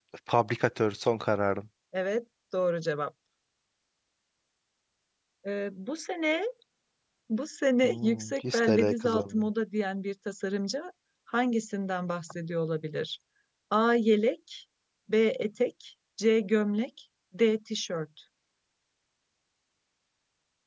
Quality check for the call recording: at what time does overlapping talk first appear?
7.8 s

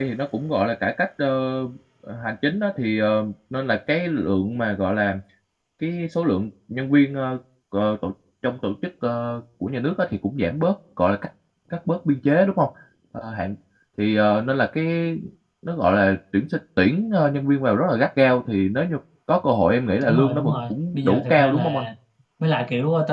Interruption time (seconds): 20.0 s

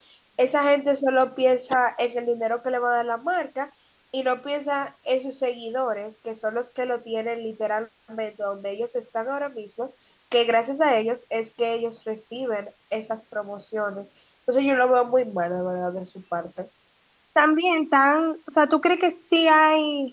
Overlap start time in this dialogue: none

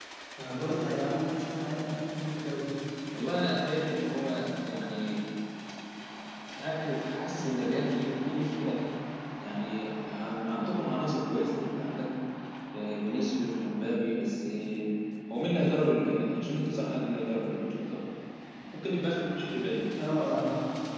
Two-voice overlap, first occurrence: none

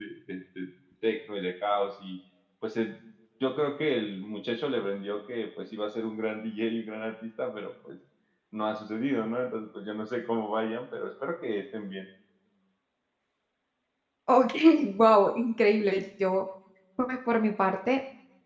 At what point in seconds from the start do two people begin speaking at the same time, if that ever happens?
none

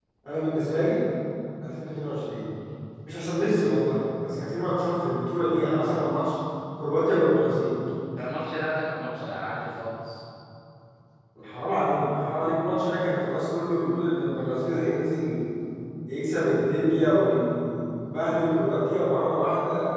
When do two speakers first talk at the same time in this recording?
none

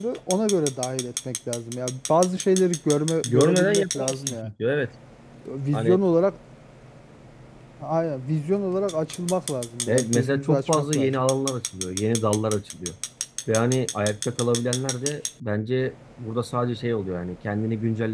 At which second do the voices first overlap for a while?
3.2 s

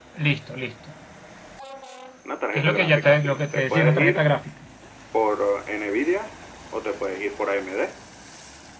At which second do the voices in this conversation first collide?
2.5 s

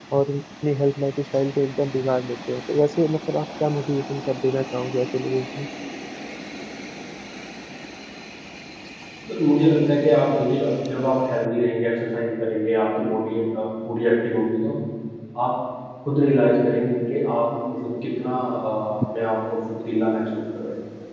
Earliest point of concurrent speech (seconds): none

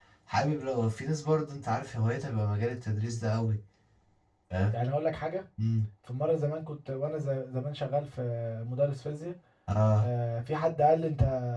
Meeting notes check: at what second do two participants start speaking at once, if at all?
none

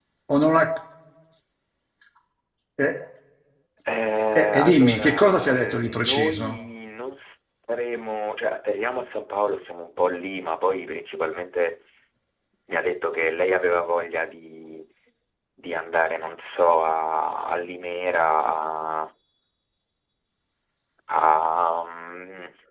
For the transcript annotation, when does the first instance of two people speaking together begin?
4.3 s

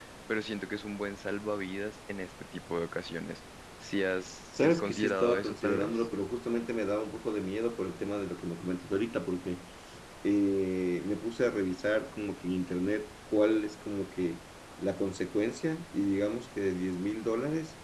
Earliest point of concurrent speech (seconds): 4.5 s

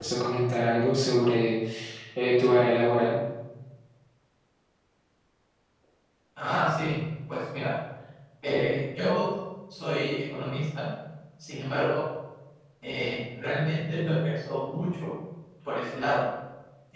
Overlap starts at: none

